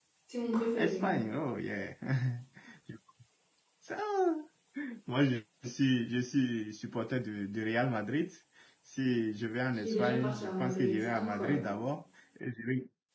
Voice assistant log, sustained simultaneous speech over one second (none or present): present